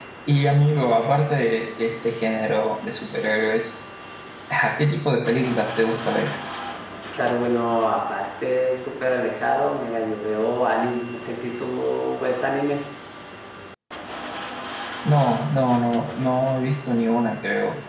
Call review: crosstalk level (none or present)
none